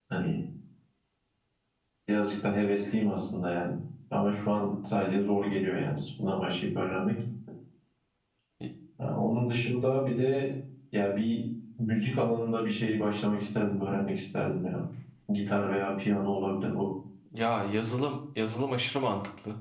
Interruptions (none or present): none